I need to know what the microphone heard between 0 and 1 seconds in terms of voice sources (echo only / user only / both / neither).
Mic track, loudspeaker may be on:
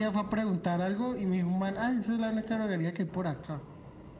echo only